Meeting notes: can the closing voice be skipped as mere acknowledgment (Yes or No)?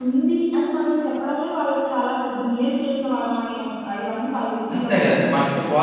No